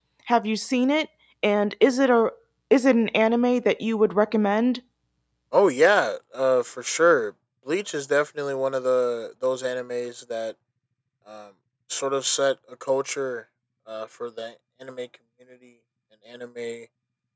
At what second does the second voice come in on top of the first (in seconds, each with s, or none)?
none